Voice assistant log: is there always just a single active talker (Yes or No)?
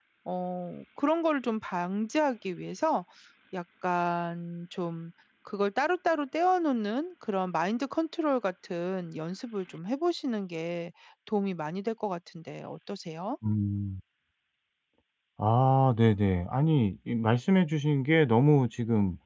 Yes